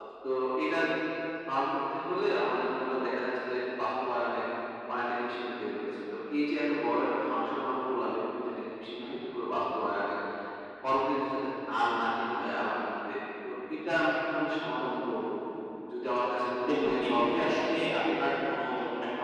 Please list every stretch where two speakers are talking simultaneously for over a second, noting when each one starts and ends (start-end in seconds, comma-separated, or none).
16.7-18.0